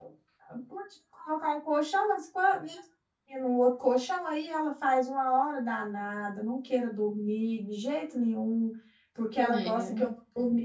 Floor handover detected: No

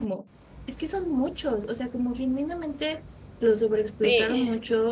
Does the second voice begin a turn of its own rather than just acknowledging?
No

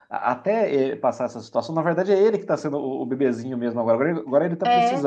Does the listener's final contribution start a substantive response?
No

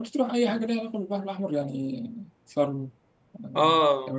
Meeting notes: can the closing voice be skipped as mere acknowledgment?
No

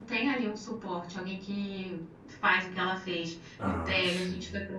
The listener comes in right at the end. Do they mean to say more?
No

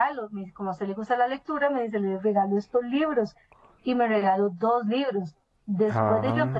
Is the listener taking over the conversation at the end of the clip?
No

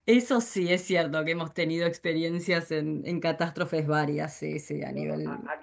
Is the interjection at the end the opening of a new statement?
Yes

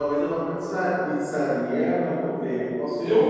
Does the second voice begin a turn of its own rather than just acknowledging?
No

